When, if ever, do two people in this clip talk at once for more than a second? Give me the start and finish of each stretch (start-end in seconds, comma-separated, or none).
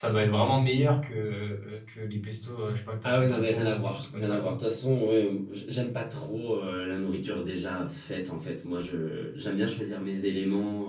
3.0-4.5